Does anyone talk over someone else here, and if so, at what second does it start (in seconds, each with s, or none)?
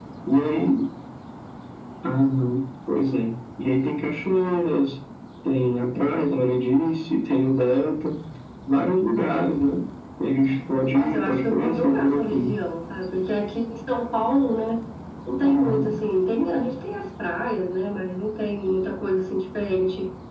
10.9 s